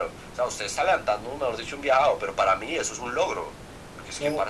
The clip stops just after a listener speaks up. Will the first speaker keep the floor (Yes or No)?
Yes